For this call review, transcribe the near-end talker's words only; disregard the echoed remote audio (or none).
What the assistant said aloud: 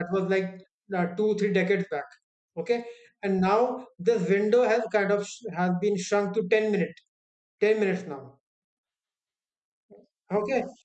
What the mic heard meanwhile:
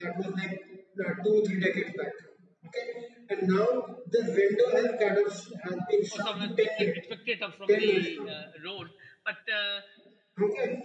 or someone has picked it, picked it up from the uh, road but uh,